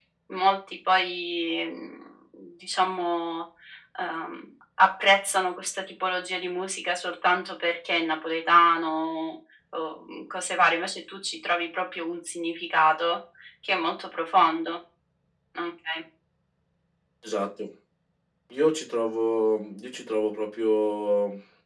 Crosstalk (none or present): none